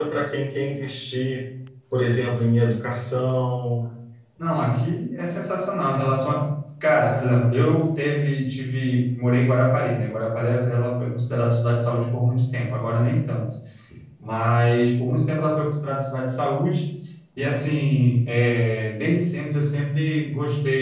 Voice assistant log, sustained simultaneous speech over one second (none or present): none